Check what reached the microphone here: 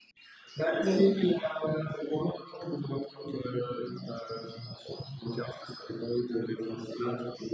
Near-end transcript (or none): Mmh mh.